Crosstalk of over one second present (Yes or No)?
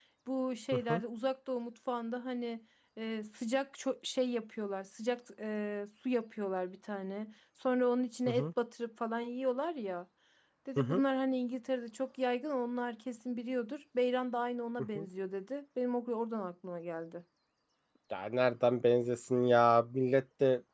No